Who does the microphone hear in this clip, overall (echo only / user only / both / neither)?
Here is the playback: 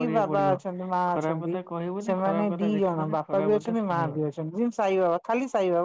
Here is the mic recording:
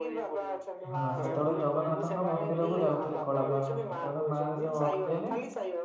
both